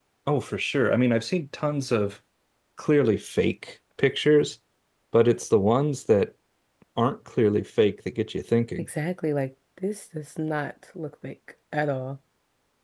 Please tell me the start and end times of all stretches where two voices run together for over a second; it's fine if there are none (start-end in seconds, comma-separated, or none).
none